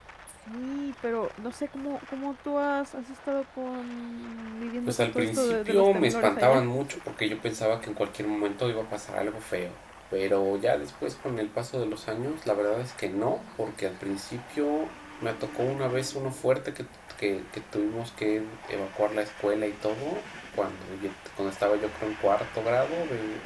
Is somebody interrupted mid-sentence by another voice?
Yes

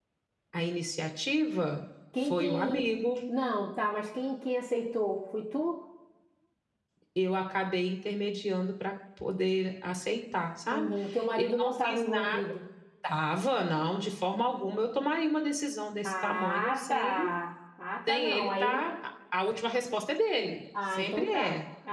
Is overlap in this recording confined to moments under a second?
No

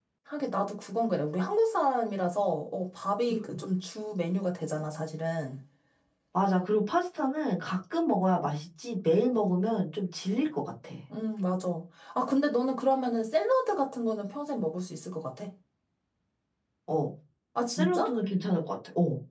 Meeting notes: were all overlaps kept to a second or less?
Yes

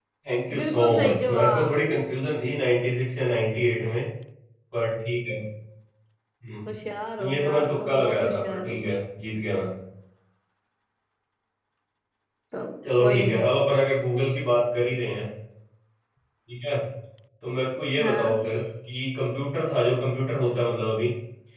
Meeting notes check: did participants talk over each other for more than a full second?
Yes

